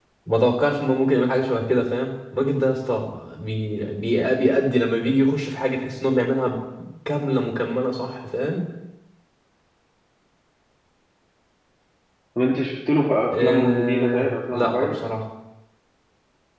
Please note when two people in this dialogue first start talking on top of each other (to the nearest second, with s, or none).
13 s